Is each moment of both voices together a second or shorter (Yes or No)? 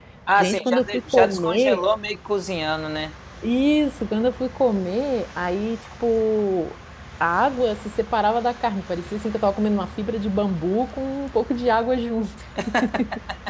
No